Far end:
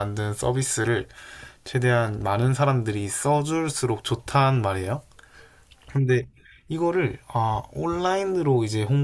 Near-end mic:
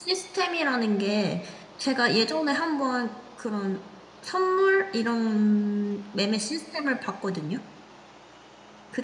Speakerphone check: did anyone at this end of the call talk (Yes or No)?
Yes